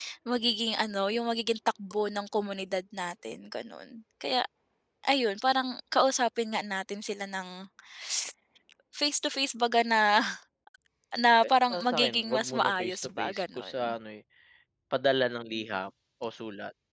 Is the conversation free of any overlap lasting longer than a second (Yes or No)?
No